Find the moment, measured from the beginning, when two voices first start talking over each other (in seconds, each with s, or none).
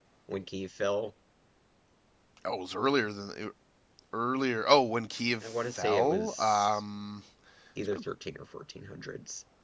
5.4 s